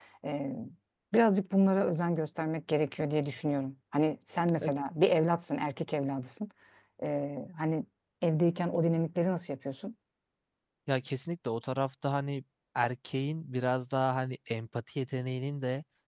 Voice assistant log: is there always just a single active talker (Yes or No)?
Yes